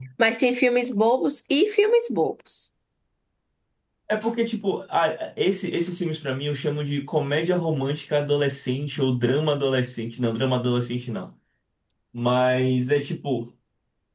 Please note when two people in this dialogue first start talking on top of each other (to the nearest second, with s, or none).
none